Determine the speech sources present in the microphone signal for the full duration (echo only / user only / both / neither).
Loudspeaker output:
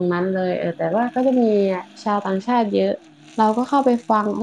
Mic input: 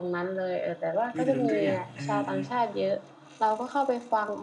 both